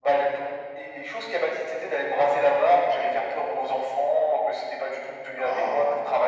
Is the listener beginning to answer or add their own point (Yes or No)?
No